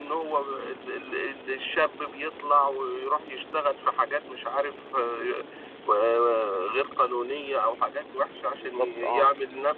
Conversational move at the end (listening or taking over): listening